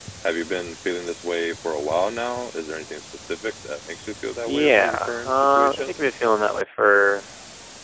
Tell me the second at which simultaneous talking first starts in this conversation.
4.4 s

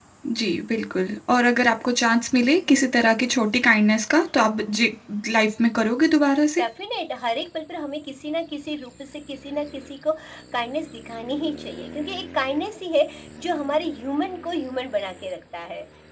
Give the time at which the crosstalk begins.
none

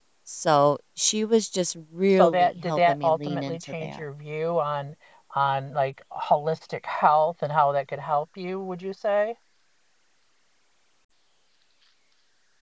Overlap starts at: 2.1 s

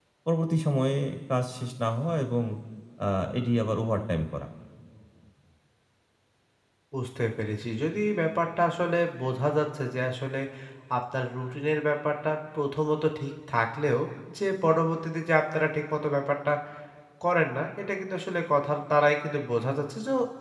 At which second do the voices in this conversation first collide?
none

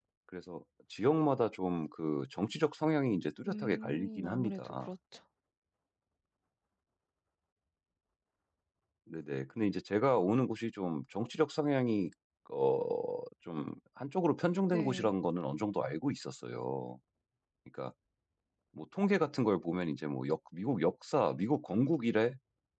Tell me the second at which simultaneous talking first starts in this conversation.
3.5 s

